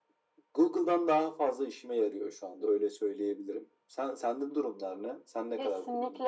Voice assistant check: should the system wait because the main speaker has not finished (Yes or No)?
No